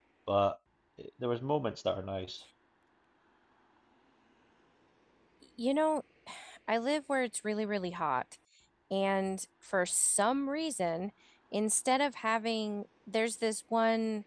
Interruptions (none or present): none